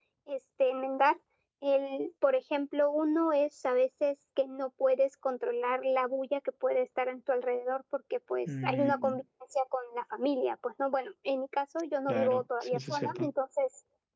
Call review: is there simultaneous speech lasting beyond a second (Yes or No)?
Yes